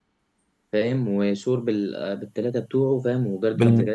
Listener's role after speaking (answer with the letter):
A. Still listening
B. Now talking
B